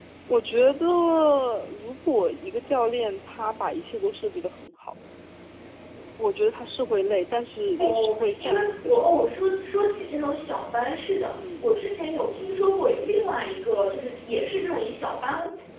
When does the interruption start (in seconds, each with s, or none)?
7.8 s